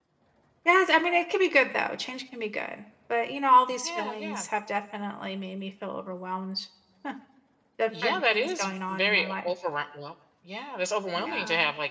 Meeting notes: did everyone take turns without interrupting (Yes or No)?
No